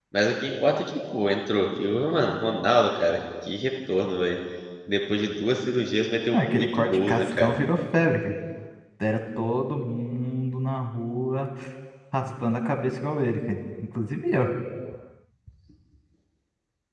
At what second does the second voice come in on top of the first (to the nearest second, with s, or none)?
6 s